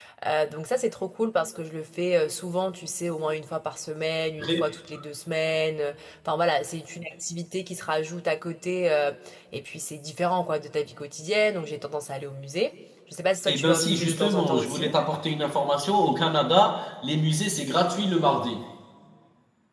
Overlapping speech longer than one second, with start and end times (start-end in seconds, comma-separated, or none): 13.5-14.9